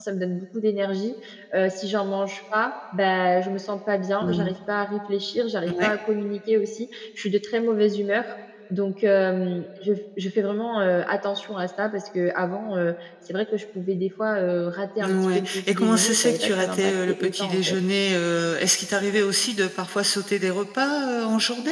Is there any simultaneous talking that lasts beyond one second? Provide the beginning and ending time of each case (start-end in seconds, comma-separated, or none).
15.0-17.8